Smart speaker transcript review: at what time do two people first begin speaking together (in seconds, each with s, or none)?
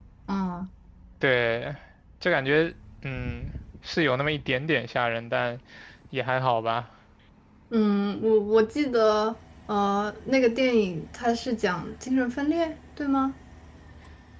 none